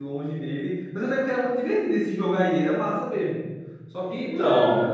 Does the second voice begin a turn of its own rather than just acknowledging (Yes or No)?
No